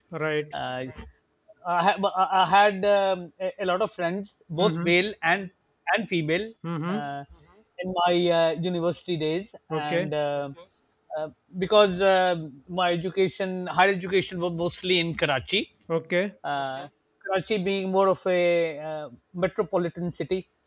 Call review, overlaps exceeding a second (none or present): none